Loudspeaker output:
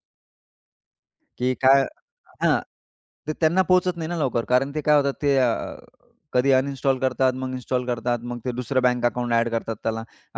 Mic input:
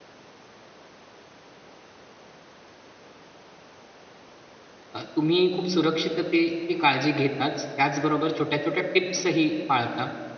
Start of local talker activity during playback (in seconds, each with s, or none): 4.9 s